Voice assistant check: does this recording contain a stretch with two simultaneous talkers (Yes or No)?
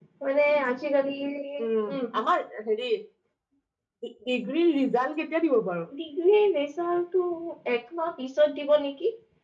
No